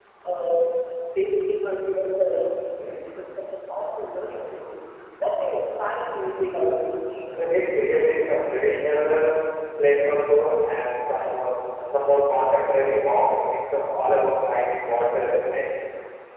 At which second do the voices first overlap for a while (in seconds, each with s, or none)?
none